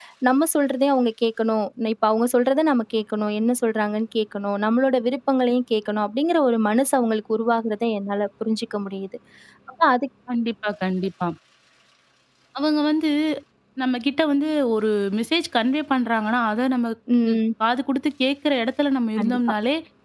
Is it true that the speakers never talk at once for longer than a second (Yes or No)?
Yes